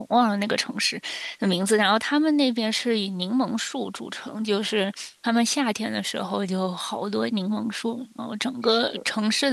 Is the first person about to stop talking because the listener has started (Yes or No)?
No